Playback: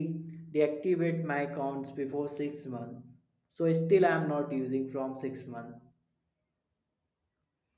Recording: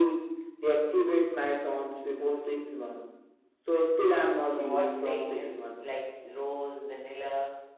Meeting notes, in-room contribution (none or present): present